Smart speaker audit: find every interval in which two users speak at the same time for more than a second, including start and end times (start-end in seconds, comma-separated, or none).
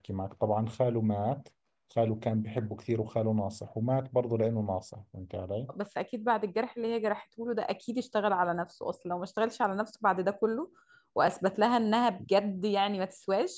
none